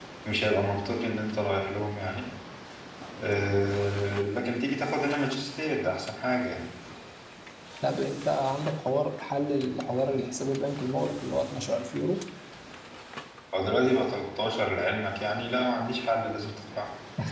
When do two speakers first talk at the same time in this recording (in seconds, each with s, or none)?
none